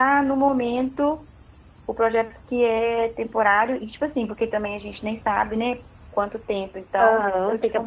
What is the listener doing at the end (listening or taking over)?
taking over